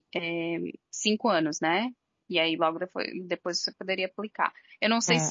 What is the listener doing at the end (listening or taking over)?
taking over